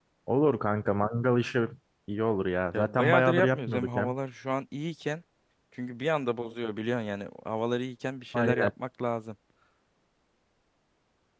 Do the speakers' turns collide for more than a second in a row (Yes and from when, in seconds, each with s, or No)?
Yes, from 2.7 s